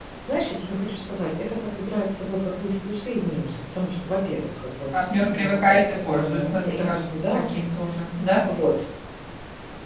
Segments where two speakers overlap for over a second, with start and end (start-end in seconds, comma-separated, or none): 5.3-7.4